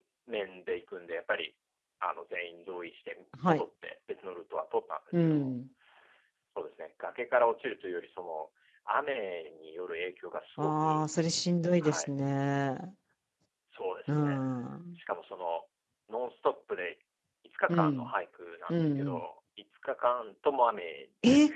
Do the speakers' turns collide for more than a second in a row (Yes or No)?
No